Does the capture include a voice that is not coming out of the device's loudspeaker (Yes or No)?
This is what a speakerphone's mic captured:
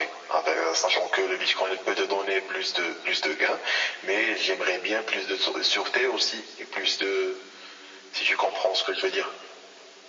No